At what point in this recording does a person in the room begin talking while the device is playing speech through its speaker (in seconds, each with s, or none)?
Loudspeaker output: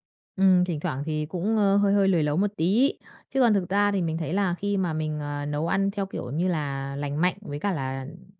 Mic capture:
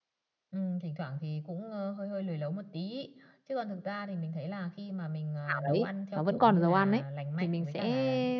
5.5 s